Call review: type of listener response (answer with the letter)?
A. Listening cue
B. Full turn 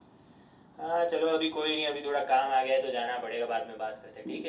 B